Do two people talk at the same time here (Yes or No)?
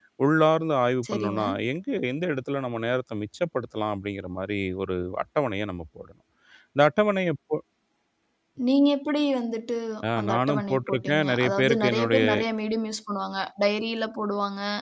Yes